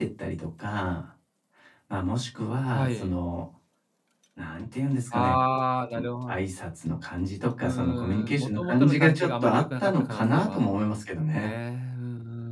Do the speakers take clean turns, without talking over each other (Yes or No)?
No